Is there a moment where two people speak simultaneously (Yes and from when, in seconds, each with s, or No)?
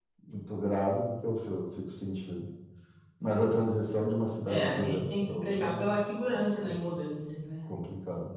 Yes, from 4.5 s